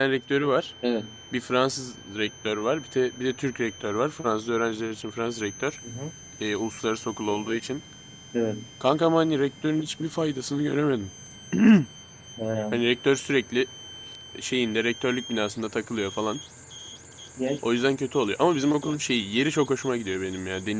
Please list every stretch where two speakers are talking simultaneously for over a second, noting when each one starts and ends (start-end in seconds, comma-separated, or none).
none